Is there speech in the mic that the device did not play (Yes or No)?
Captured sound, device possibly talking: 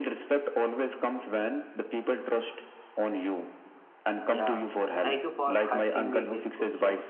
Yes